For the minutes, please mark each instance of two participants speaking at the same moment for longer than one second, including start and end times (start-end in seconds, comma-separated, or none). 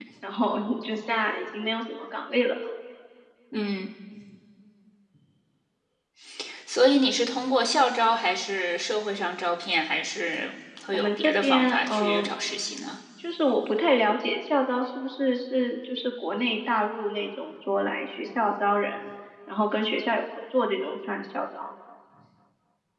10.9-12.3